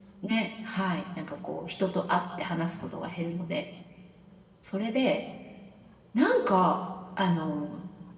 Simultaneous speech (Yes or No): No